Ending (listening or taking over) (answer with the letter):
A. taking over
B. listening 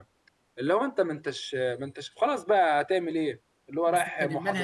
A